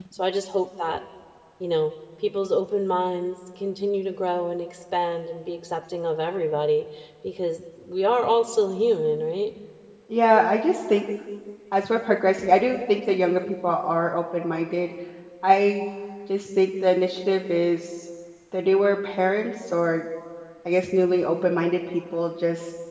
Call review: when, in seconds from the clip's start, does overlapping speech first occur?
none

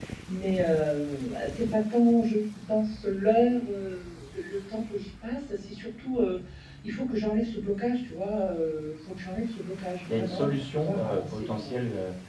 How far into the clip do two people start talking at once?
10.1 s

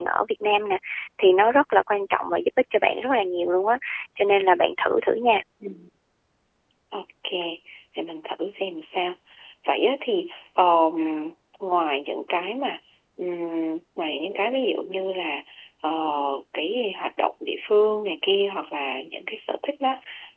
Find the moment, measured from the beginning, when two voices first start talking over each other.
none

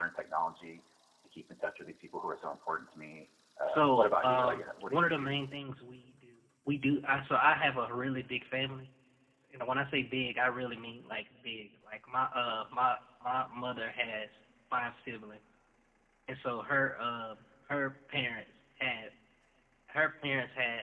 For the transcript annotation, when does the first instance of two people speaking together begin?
3.7 s

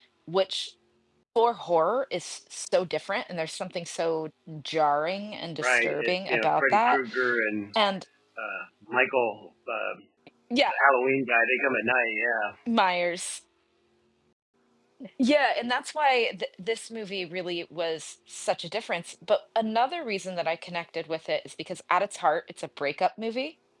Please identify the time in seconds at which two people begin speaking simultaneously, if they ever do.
5.6 s

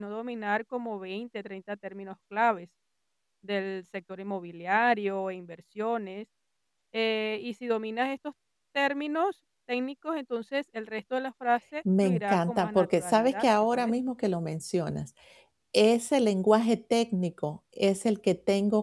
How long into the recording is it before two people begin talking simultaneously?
11.8 s

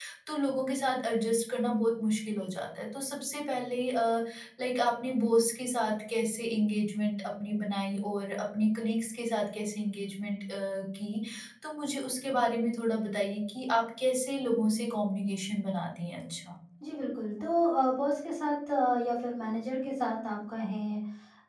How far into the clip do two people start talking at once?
none

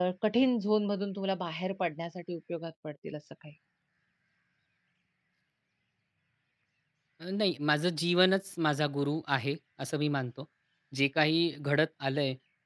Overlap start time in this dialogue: none

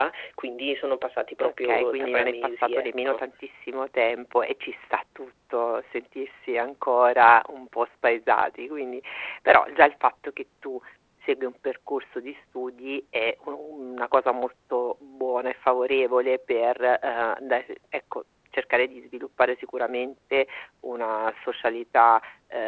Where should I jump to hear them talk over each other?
1.4 s

